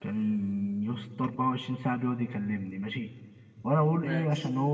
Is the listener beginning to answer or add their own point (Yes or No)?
No